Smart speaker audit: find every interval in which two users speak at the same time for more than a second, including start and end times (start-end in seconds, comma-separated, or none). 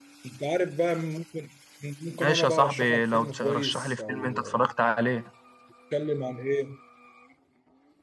2.2-4.4